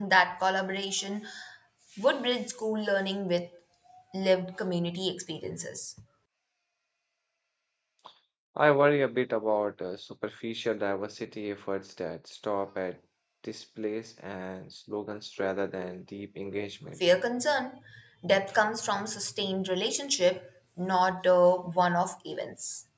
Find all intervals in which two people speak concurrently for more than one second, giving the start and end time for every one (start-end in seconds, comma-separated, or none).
none